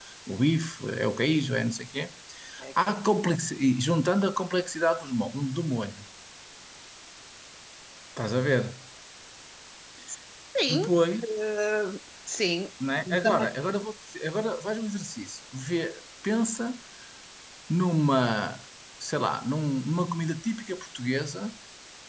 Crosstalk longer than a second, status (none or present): none